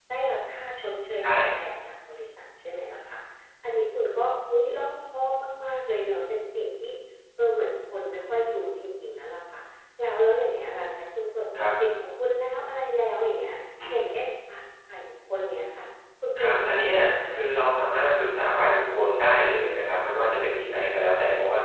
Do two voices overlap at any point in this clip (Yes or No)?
Yes